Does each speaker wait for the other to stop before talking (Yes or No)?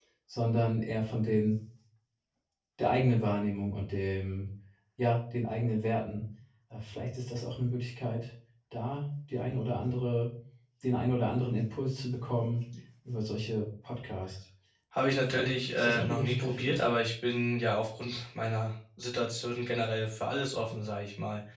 No